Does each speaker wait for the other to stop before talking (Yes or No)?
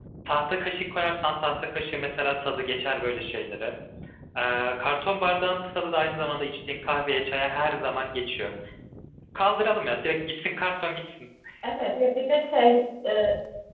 Yes